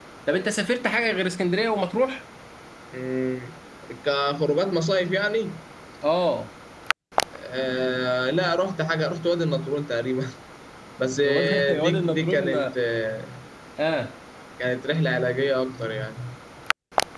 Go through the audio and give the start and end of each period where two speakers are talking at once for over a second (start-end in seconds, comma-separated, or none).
11.2-12.5